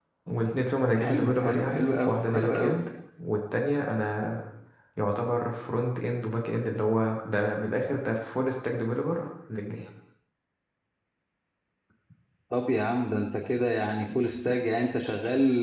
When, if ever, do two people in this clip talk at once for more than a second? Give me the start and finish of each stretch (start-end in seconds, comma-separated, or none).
1.0-2.8